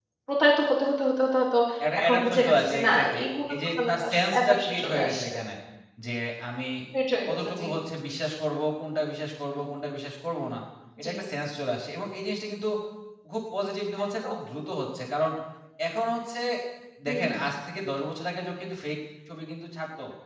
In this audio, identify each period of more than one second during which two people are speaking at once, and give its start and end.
2.0-5.3

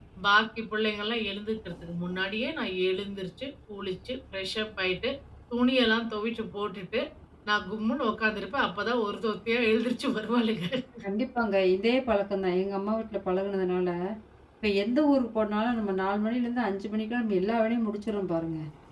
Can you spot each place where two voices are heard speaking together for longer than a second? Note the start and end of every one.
none

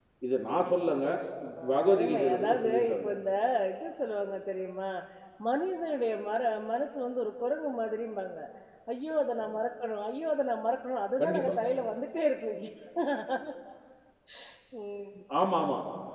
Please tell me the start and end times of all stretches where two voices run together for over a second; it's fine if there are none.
1.7-3.1

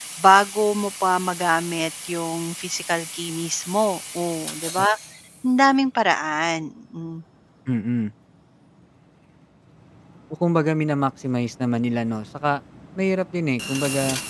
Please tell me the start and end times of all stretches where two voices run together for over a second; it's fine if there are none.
none

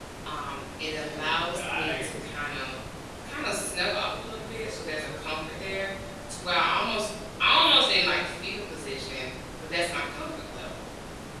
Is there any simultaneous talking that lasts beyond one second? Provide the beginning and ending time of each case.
1.0-2.2

